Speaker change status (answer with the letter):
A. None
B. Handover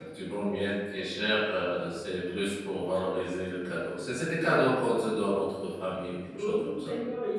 B